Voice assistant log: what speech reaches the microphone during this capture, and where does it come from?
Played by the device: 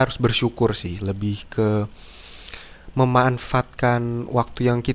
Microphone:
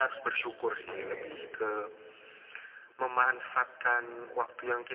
both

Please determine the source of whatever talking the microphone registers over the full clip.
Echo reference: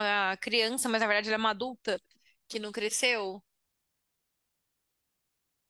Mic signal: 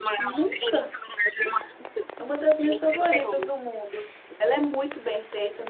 both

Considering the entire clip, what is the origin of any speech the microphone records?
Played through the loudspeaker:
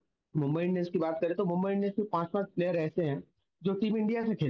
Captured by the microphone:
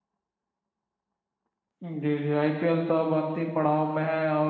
user only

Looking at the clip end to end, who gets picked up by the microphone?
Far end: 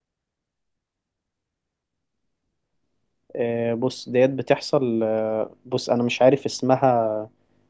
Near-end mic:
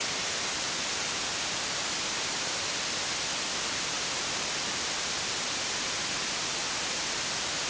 neither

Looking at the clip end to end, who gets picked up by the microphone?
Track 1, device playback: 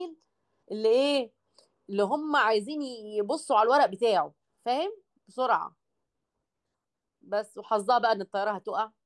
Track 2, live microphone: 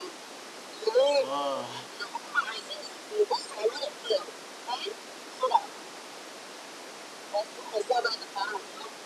both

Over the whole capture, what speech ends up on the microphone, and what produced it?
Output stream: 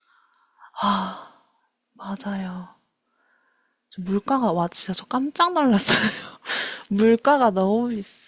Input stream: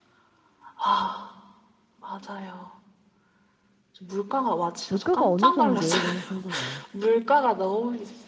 both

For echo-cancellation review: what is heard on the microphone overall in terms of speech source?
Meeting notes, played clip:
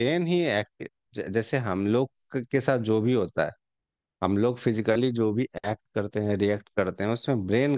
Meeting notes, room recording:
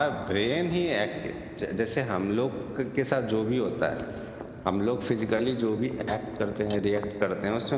echo only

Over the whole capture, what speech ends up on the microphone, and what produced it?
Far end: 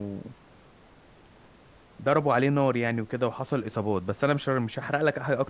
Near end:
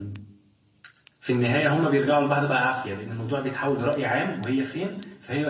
user only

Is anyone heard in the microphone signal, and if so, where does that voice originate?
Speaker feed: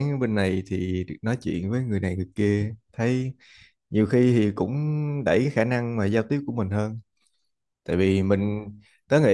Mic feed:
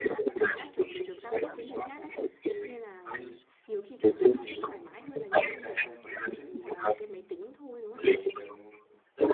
both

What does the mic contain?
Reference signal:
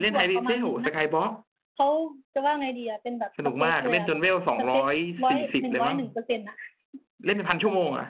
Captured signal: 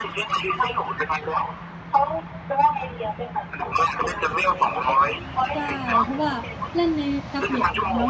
both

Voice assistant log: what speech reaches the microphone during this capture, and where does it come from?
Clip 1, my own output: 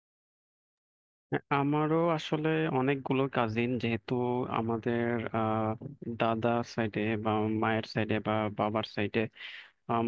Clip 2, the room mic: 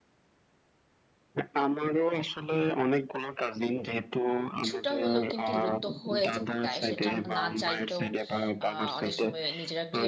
both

